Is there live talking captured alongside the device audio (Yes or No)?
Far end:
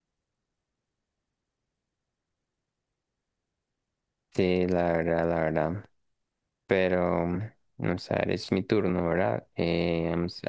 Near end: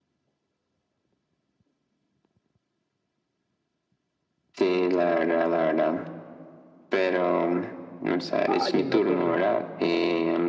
Yes